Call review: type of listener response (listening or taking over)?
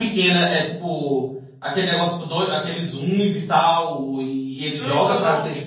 taking over